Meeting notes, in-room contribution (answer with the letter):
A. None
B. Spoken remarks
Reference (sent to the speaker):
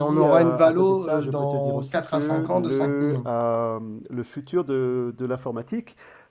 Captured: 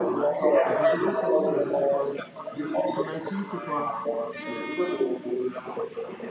B